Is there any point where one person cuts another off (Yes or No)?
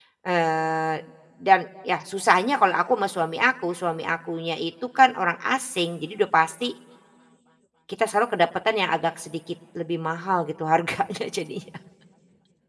No